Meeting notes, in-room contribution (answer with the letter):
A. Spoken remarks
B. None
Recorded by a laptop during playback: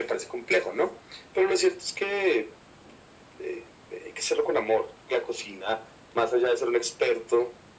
B